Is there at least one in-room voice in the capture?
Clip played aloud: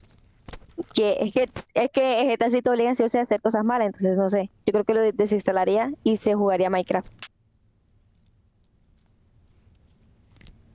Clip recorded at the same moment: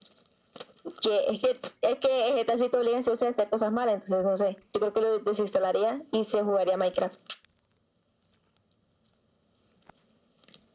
No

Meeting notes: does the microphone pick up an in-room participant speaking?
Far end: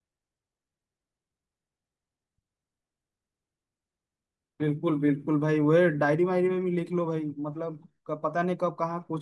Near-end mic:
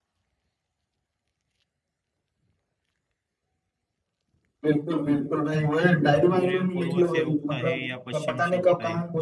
Yes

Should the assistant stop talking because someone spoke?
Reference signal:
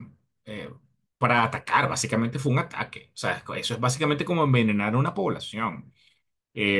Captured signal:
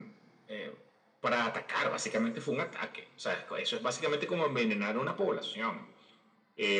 No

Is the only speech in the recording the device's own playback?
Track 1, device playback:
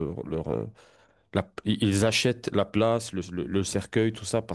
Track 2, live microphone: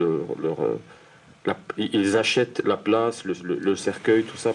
Yes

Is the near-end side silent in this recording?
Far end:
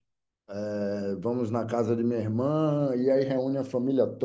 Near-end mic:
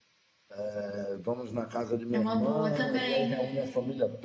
No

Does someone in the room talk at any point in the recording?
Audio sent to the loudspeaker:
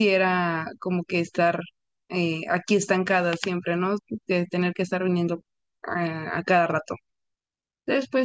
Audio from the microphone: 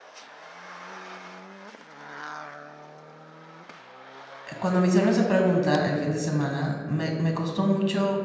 Yes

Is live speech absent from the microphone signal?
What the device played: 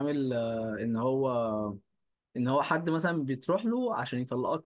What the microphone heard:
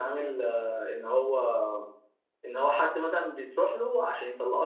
Yes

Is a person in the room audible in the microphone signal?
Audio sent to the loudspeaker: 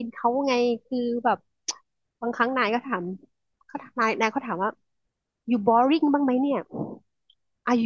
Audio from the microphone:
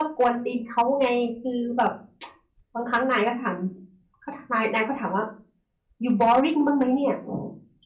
No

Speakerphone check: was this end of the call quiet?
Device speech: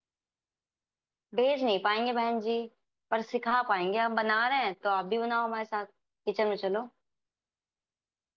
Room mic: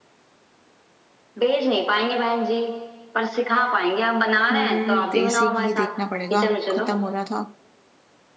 No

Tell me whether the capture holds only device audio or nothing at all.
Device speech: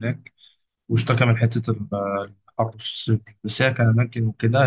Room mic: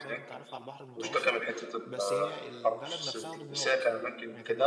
No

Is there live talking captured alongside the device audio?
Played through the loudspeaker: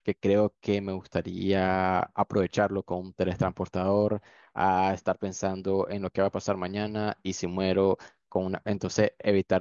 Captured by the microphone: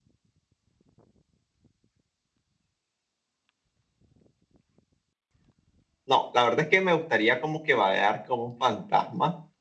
Yes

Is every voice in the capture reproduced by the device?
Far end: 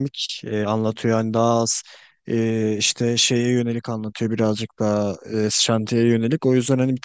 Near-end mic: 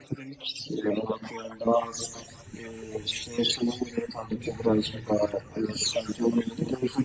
Yes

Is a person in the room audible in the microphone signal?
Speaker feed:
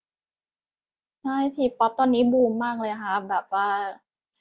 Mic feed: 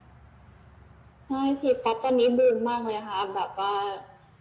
No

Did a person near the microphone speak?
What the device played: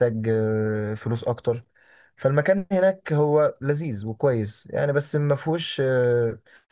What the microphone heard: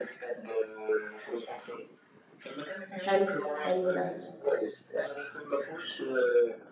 Yes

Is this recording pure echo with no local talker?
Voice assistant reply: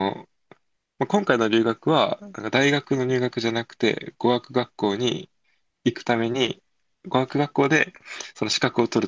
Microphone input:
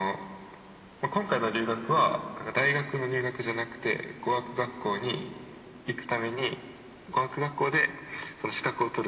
Yes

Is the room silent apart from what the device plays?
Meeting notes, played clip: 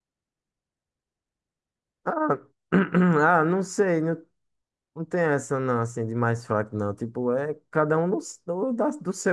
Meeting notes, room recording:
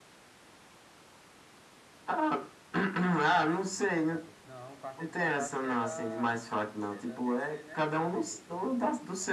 No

